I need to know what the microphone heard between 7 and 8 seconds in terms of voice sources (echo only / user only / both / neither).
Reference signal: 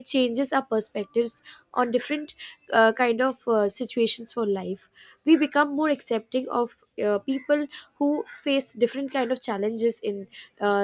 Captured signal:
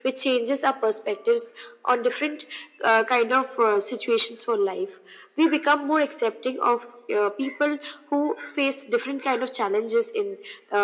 echo only